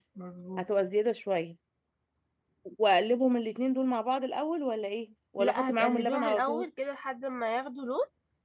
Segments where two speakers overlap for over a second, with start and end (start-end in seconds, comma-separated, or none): 5.4-6.7